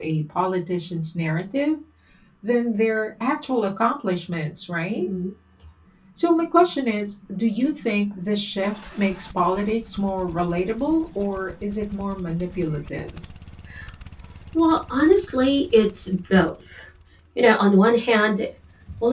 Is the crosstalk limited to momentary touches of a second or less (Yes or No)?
Yes